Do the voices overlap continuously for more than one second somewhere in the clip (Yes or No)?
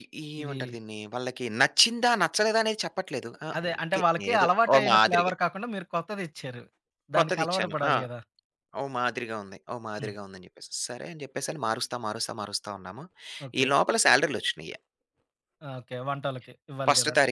Yes